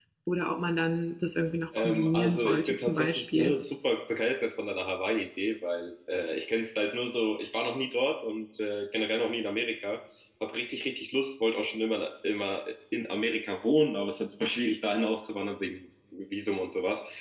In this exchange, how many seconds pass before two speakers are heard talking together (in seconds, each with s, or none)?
1.7 s